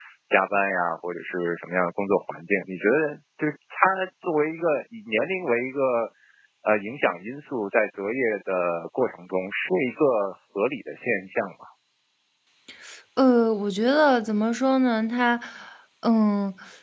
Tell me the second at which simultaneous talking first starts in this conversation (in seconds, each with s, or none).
none